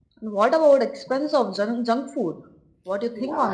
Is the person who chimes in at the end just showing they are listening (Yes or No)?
No